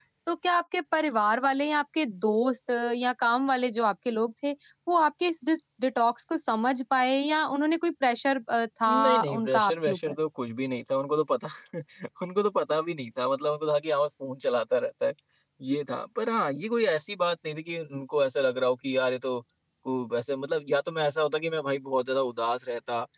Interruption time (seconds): 8.9 s

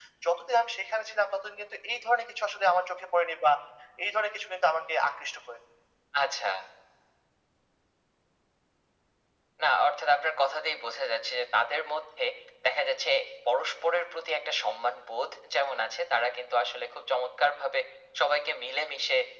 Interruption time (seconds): none

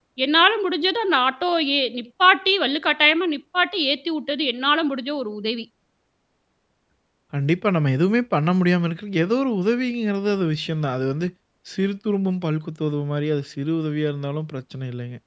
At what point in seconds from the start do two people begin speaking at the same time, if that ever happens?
none

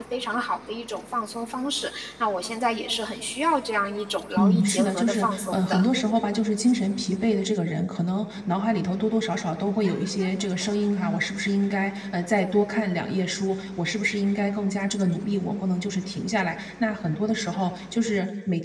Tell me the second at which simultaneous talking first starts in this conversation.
4.4 s

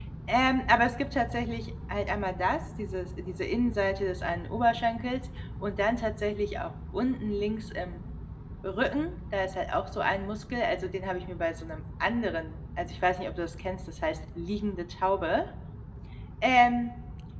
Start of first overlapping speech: none

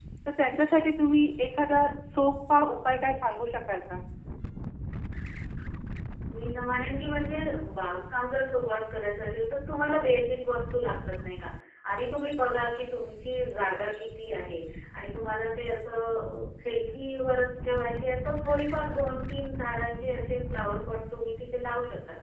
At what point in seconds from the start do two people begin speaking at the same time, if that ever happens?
none

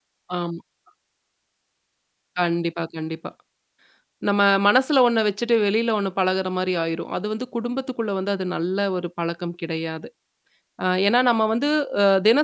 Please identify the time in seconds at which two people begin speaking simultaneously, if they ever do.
none

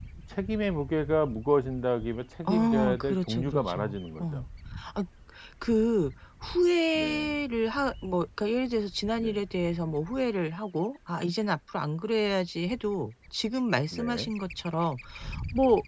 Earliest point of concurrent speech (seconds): 2.6 s

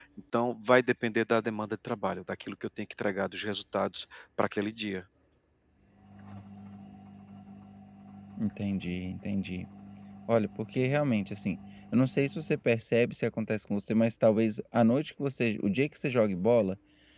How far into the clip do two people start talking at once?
none

